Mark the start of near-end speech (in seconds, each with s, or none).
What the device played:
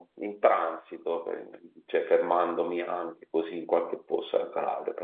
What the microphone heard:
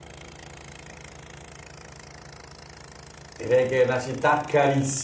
3.4 s